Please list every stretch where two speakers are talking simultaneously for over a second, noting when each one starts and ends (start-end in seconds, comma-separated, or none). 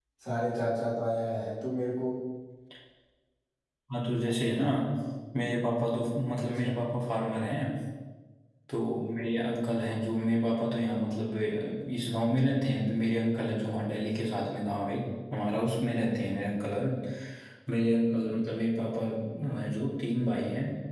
none